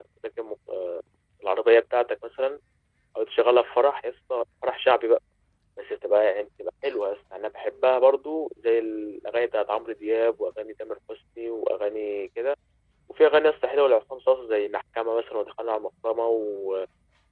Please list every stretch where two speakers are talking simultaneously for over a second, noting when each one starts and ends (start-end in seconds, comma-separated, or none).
none